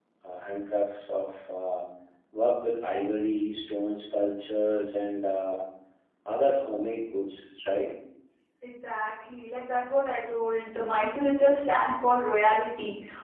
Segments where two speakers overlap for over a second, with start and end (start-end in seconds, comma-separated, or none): none